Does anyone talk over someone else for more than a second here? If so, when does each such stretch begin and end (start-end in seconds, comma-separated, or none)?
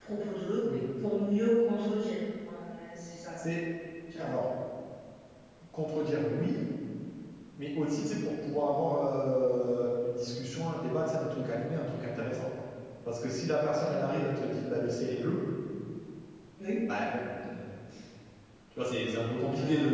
none